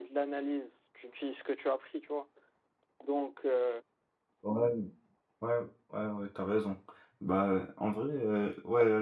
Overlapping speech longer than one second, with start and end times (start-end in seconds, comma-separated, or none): none